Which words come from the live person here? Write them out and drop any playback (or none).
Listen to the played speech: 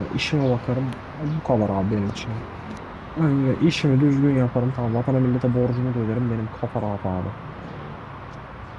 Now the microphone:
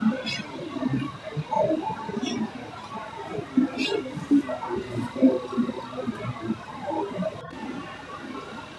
none